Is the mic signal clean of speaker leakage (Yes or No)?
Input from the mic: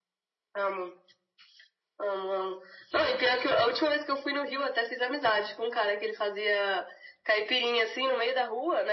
No